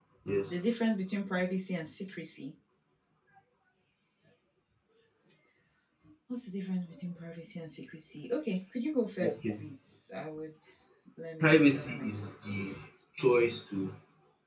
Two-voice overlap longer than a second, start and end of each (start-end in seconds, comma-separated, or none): 11.4-12.8